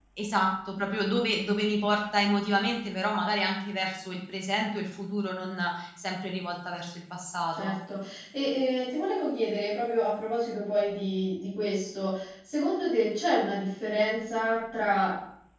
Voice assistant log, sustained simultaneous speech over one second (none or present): none